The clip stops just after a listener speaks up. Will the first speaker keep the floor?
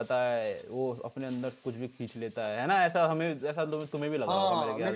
No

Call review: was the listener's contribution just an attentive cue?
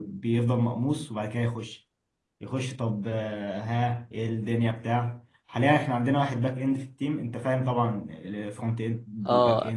No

